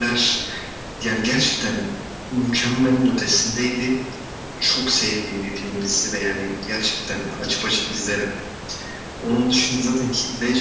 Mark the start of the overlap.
none

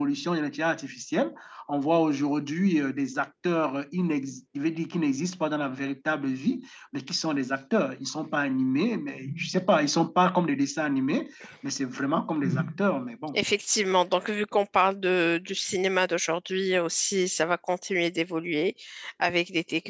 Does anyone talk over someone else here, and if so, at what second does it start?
none

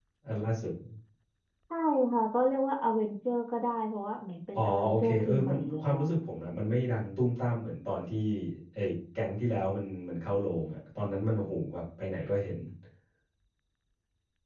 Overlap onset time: 4.5 s

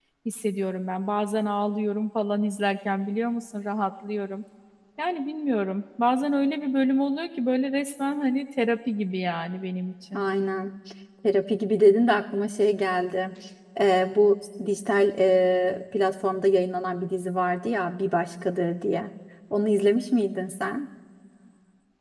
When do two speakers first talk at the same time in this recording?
none

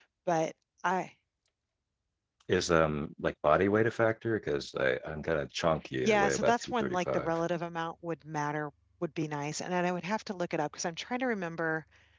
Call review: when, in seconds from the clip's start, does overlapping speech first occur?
6.0 s

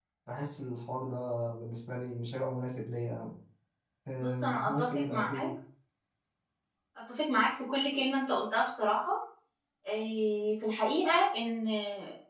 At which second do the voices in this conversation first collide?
4.2 s

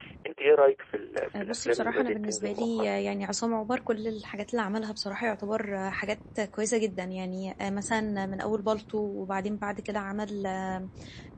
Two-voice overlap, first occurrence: 1.3 s

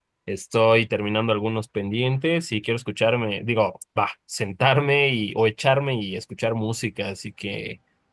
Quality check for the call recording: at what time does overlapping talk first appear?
none

